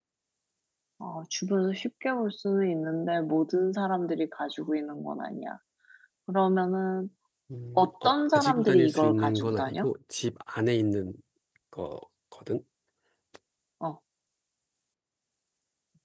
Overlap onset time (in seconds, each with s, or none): 7.8 s